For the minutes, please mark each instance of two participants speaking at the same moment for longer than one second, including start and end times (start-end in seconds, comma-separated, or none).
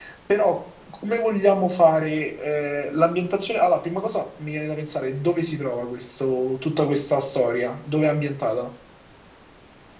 none